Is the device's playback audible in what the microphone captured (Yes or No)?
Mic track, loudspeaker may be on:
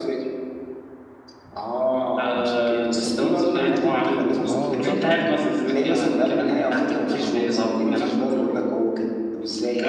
Yes